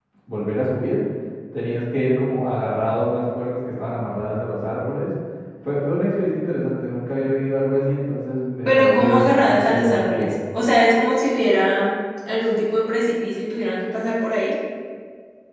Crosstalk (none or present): present